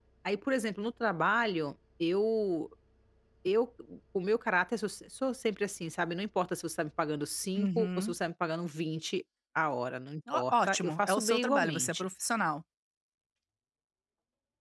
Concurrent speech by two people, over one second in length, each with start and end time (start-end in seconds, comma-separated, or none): 10.3-12.0